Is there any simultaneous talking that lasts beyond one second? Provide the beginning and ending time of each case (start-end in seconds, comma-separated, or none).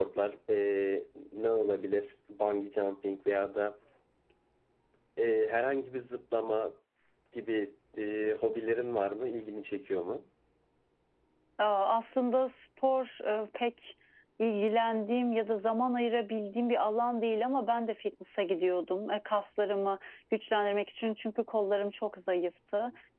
none